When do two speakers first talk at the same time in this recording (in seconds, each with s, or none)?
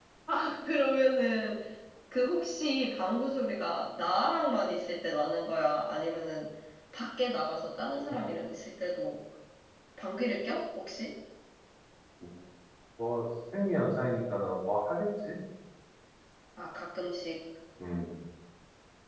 none